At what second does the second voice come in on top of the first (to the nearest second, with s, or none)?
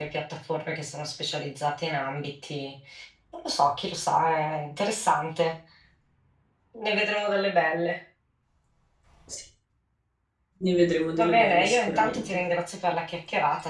11 s